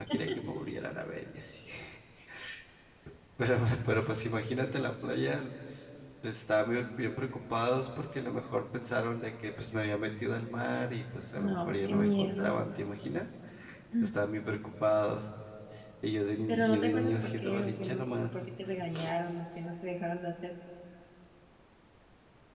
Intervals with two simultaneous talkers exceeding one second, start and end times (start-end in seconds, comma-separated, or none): 11.4-12.6, 16.5-18.4